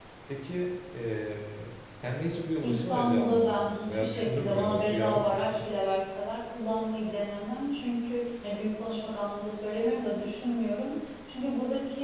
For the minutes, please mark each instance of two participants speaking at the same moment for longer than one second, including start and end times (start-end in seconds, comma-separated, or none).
2.6-5.6